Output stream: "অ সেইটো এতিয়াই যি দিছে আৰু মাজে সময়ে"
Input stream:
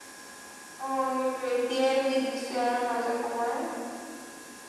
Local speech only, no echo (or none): none